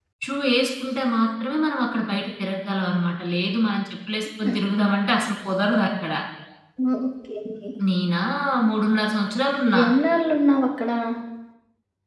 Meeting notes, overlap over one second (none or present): none